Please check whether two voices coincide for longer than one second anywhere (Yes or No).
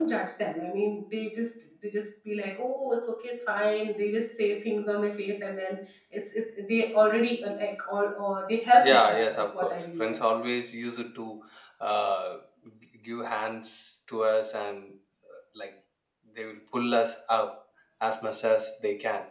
Yes